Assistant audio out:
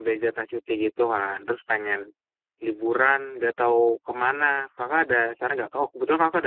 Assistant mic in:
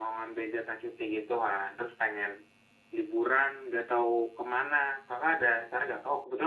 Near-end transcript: none

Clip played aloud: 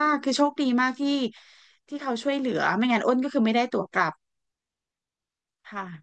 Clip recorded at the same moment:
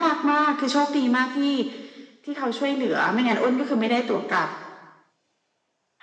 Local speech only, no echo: none

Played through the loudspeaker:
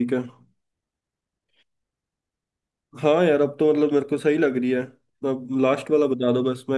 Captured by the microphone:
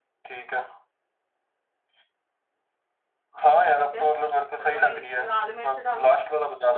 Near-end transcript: ठीक है और थोड़ी लाल मिर्च डालो

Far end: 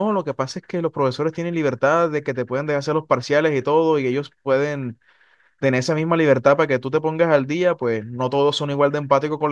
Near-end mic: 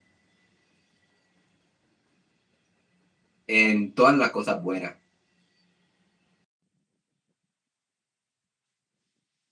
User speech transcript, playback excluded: en todas las cosas buenas.

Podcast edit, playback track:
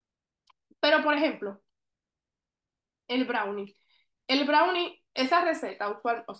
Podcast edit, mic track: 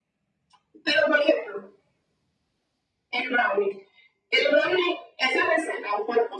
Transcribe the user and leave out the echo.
none

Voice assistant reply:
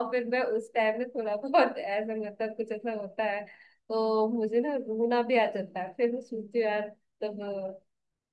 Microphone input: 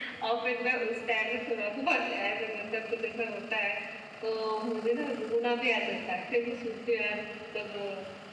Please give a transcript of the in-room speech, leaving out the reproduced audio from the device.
none

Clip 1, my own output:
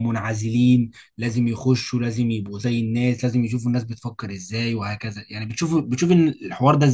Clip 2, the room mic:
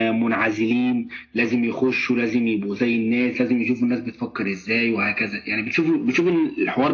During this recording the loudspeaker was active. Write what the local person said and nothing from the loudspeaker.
none

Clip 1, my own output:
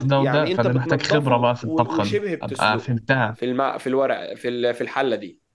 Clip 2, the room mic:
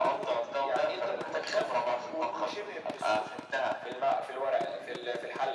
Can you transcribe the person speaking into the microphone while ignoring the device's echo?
none

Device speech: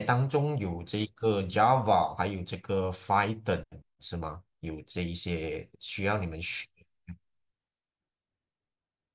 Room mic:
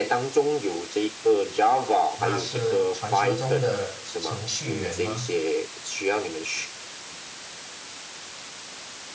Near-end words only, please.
那是传说中的程序员吗？

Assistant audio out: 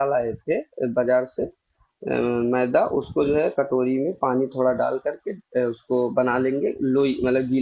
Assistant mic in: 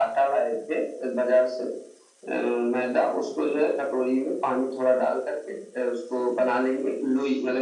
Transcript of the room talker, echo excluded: none

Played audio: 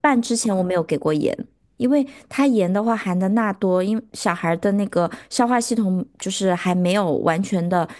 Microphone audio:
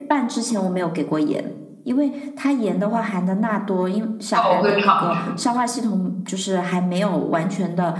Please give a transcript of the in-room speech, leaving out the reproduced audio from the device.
那我会尝试。

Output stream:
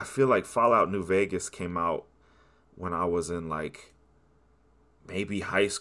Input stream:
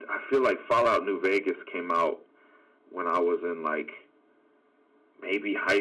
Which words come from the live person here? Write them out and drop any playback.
none

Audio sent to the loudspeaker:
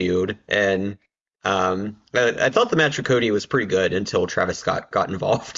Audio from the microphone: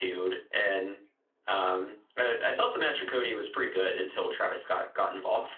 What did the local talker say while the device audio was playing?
none

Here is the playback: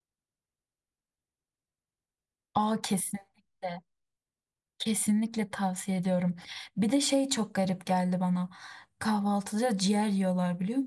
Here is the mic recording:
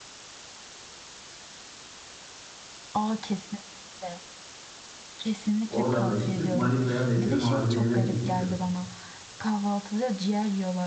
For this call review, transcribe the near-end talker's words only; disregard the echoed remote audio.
Oradan da çıktık Manisa'ya mesir macunu yemeye gittik sırf.

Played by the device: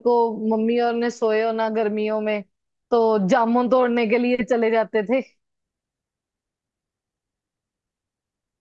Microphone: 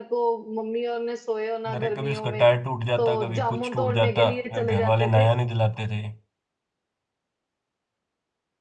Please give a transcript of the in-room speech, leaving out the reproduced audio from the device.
अरे कभी उसका टायर टूट जाता कभी कुछ टूट जाता और घर वाले नया नहीं दिलाते थे

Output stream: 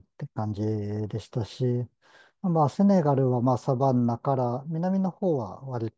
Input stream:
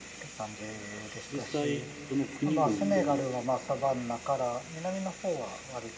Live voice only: 実際、その国々での、

